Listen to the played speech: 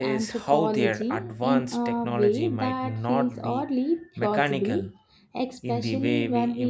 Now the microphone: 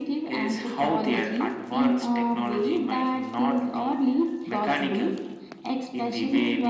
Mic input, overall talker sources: echo only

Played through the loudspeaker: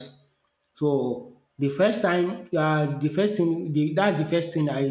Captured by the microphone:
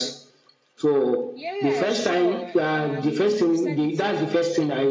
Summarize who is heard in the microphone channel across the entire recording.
both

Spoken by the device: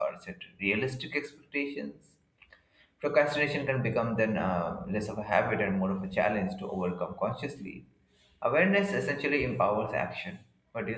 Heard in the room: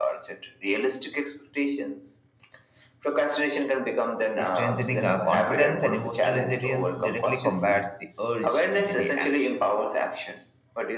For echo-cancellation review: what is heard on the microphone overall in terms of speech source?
both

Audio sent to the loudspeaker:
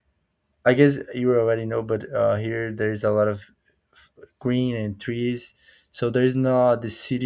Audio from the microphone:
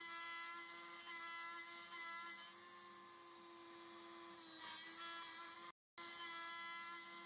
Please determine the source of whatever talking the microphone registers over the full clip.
neither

